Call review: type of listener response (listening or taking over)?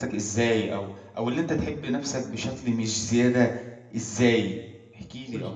taking over